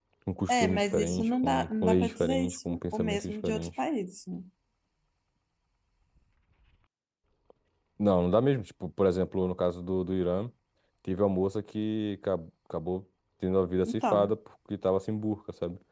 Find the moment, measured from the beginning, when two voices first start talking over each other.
0.5 s

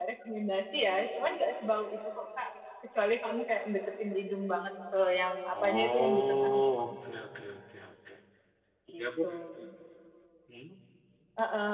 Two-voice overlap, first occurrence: 5.6 s

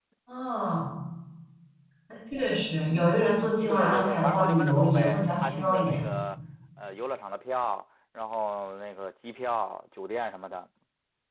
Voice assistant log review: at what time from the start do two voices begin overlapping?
3.7 s

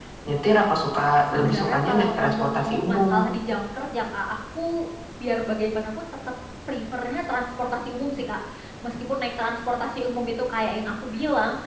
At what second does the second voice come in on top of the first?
1.2 s

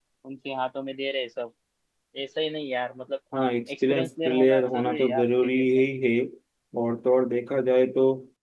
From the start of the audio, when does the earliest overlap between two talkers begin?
3.9 s

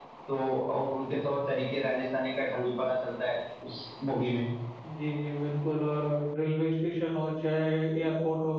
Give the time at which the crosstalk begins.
none

